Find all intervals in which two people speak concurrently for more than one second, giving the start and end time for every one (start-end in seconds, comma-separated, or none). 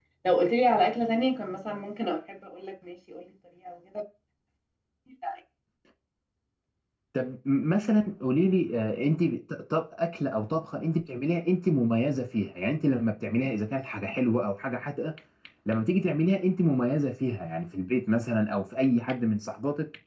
none